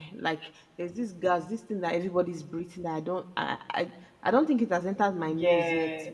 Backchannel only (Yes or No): Yes